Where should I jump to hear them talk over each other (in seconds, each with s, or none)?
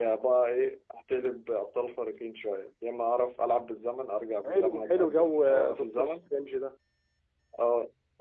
4.4 s